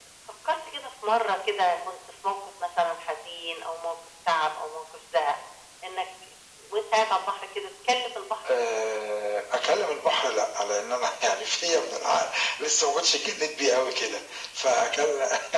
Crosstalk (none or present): none